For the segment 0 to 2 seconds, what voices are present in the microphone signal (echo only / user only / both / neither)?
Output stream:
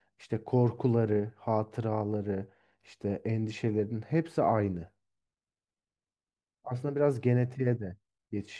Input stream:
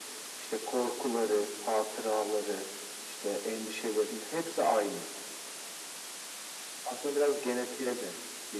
echo only